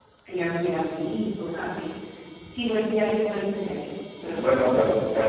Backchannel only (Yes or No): No